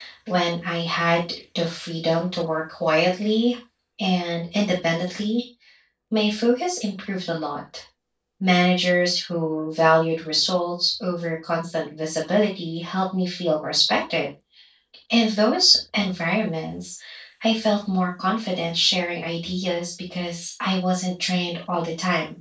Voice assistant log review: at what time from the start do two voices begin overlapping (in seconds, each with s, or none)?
none